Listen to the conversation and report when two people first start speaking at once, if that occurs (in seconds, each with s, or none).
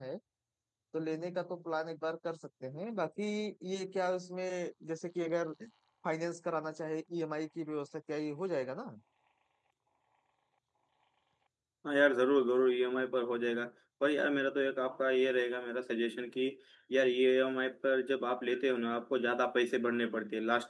none